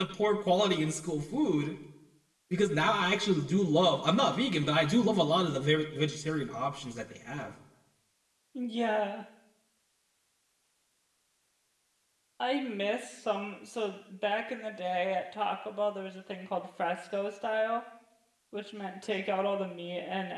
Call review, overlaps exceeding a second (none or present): none